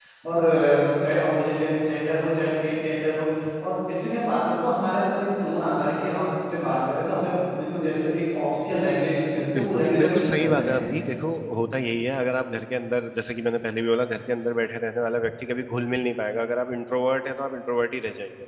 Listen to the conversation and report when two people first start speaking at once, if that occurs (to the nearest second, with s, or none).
10 s